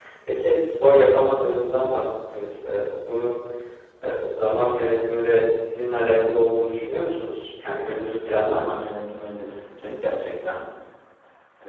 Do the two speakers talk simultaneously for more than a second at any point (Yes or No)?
Yes